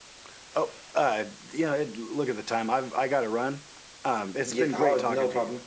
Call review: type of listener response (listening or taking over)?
taking over